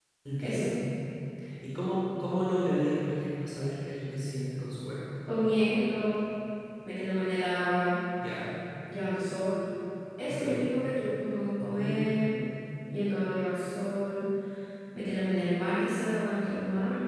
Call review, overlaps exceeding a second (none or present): none